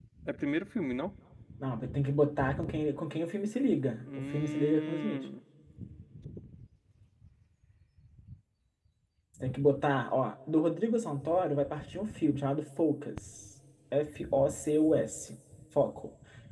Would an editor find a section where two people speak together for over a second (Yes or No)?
Yes